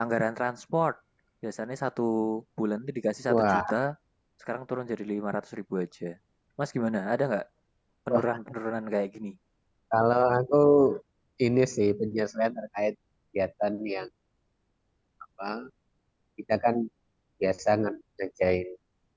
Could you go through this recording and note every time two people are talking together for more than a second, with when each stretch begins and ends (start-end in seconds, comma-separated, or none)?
none